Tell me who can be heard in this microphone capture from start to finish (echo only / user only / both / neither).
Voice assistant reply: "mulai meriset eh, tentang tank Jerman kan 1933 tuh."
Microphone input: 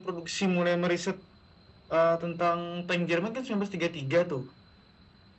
echo only